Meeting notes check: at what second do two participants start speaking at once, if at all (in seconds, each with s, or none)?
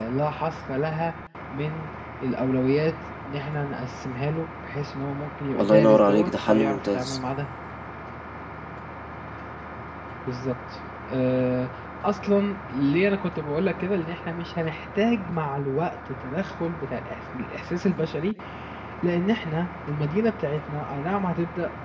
5.5 s